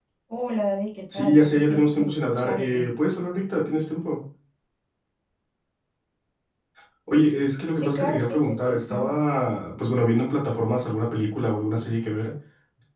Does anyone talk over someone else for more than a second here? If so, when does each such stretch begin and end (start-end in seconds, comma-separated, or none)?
1.1-2.9, 7.7-9.2